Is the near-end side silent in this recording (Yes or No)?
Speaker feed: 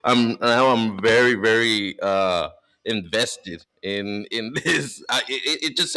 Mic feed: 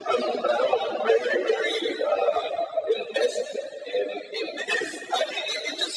Yes